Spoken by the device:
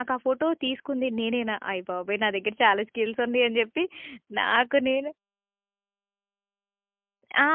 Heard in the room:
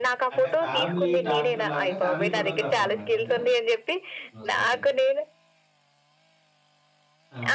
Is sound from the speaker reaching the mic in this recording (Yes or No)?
Yes